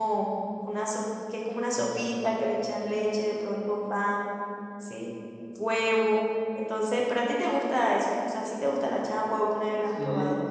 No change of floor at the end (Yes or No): No